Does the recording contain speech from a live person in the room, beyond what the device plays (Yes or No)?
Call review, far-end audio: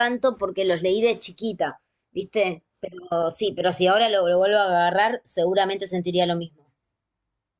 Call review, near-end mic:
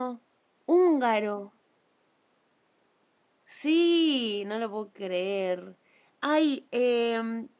Yes